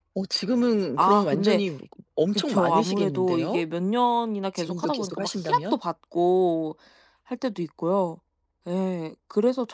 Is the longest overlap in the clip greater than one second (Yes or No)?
Yes